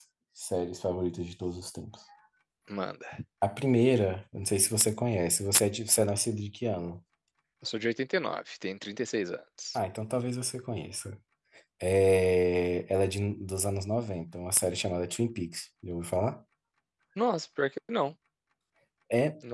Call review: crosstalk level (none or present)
none